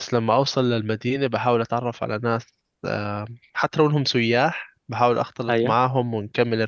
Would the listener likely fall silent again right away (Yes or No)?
Yes